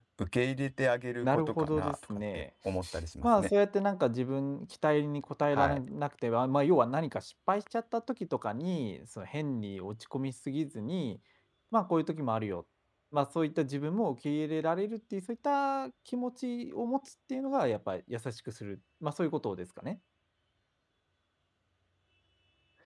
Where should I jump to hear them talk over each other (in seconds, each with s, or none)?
1.2 s